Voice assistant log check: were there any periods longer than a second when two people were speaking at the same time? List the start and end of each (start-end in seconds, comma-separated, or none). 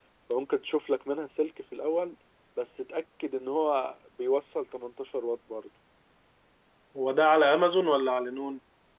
none